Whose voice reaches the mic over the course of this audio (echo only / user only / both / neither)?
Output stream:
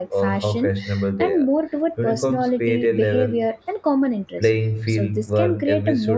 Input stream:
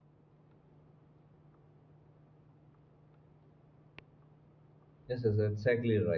user only